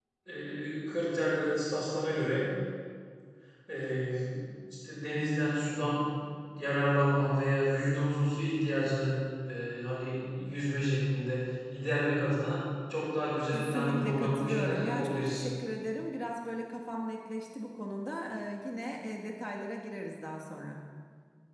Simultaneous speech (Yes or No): Yes